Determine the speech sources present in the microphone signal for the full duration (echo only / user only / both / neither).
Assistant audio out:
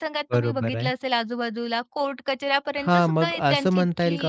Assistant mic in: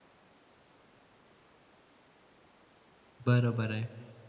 user only